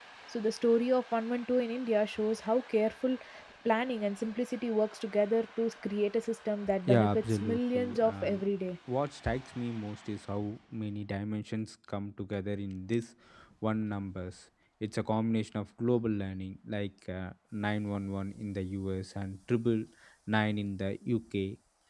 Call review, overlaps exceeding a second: present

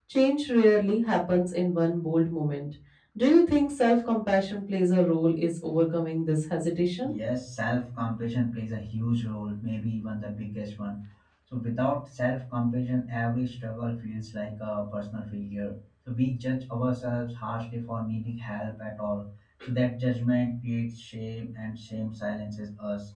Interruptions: none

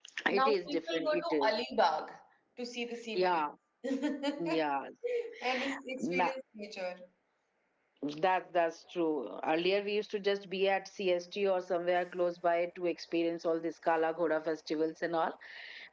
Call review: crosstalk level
present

